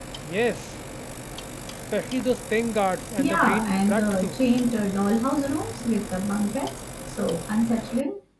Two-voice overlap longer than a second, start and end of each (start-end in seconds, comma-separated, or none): 3.2-4.4